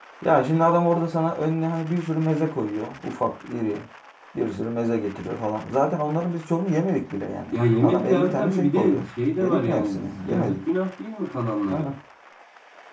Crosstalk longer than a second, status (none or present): present